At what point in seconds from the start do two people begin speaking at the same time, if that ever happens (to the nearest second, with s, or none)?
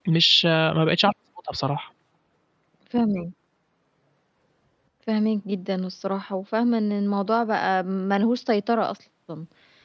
none